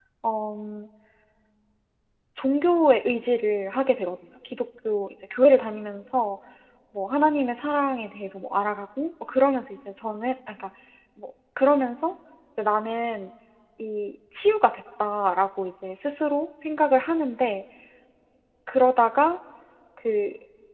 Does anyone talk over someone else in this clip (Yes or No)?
No